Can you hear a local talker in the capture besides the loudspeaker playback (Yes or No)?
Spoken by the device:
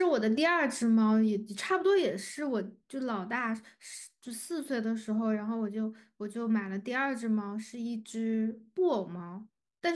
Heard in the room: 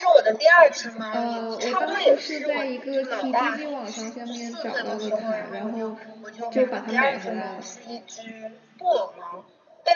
Yes